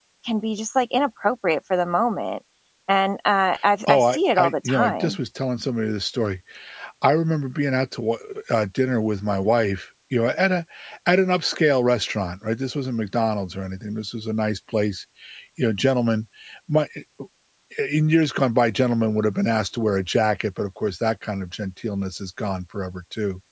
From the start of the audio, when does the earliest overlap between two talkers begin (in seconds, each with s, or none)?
3.9 s